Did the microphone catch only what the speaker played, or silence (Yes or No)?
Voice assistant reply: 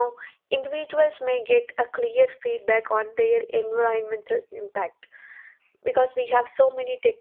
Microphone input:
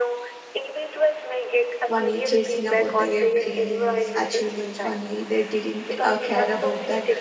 No